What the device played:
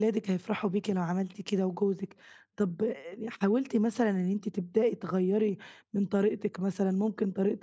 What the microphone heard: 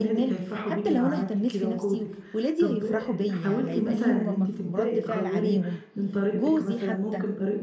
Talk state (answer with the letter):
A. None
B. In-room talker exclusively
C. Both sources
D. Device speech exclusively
C